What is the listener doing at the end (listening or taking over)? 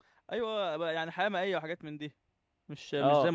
taking over